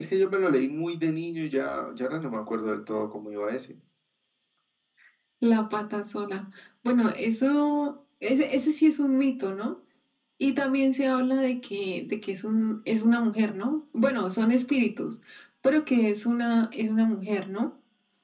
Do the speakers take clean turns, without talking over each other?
Yes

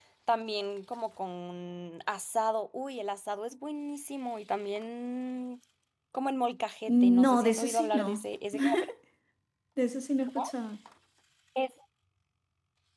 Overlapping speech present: Yes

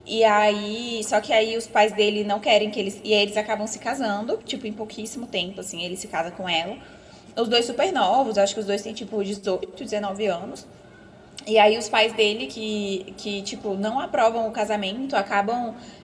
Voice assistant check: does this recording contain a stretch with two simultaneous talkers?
No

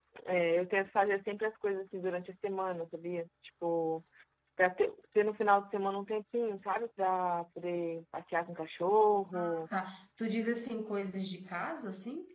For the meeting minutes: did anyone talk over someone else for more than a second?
No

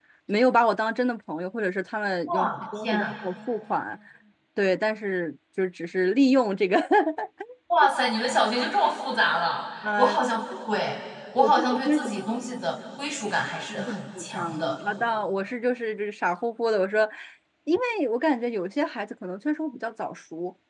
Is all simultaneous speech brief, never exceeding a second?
No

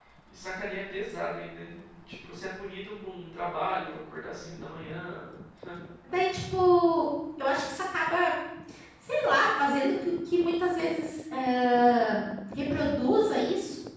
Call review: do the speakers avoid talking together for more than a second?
Yes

